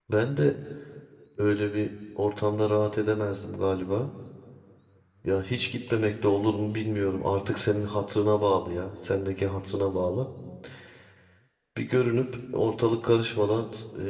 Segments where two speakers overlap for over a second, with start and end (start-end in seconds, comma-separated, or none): none